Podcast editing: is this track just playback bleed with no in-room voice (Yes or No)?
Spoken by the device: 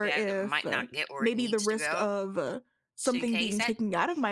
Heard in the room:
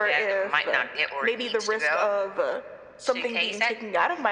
Yes